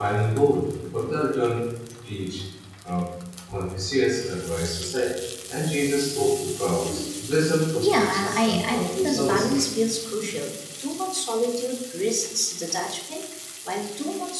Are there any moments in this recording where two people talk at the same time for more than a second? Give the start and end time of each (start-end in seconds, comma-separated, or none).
7.8-9.6